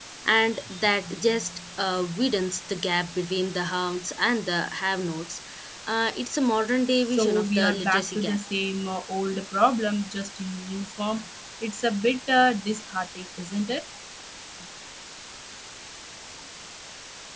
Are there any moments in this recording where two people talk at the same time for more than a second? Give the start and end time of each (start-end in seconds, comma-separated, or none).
7.0-8.4